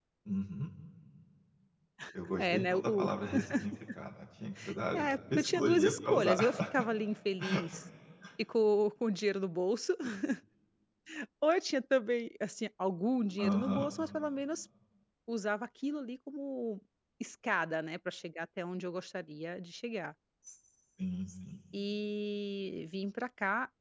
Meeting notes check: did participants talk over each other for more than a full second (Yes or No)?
Yes